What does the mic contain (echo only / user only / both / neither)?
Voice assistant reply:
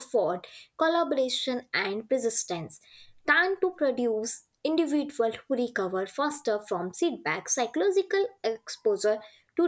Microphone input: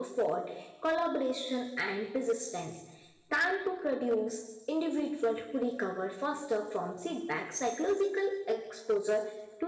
echo only